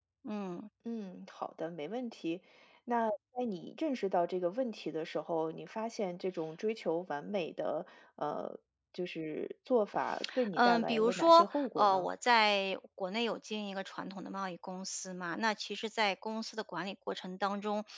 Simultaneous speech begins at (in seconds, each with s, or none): 10.5 s